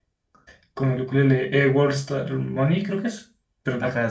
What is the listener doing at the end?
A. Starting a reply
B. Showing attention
A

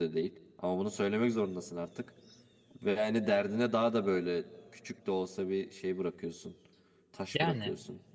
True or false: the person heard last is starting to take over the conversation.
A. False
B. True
B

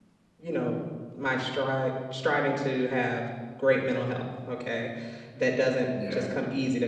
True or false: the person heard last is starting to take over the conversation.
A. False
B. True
A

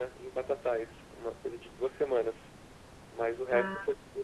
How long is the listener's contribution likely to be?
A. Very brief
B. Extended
A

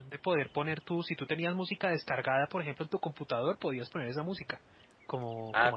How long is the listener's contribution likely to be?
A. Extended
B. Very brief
A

